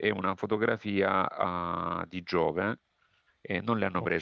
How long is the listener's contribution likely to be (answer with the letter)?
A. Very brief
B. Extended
A